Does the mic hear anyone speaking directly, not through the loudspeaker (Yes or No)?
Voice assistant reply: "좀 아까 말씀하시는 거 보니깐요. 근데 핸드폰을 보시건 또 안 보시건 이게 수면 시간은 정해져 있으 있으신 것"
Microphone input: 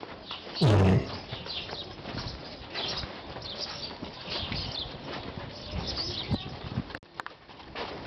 Yes